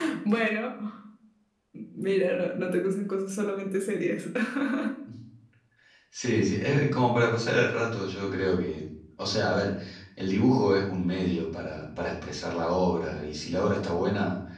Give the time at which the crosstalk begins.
none

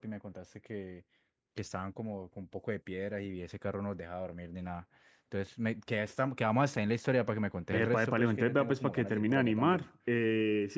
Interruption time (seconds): 7.7 s

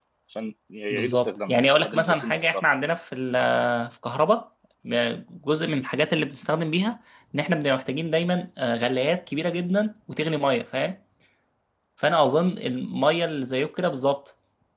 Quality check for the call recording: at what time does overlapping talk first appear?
0.9 s

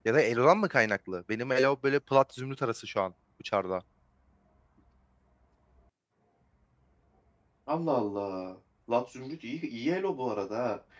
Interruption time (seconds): none

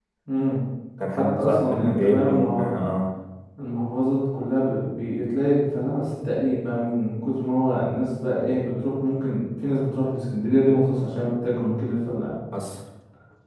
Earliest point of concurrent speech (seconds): 1.2 s

